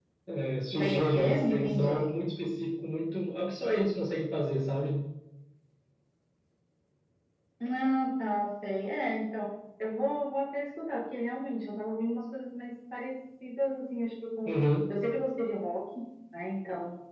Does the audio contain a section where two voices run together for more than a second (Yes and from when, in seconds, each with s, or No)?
Yes, from 0.7 s